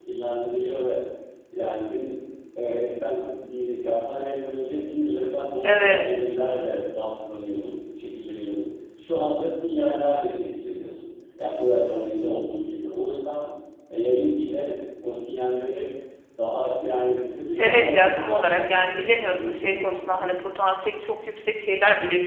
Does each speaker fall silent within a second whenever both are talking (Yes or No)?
No